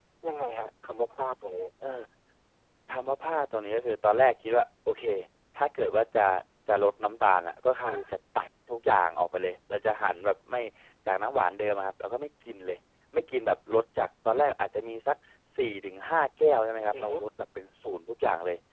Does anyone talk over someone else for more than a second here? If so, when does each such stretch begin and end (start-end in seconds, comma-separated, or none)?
none